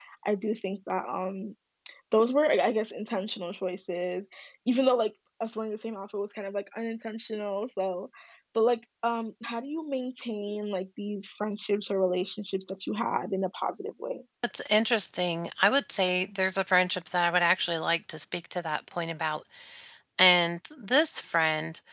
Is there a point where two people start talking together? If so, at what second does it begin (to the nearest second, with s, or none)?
none